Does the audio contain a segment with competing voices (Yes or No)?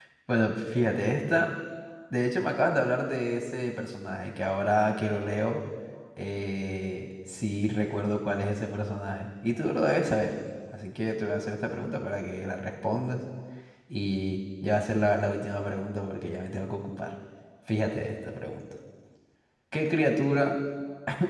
No